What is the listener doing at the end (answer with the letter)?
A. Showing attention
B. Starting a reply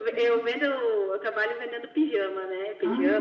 A